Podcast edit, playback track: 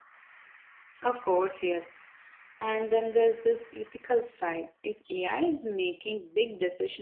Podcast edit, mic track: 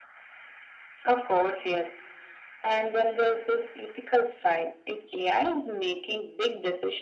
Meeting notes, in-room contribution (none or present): none